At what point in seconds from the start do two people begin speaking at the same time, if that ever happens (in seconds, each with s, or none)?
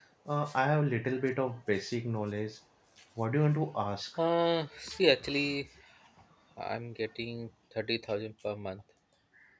none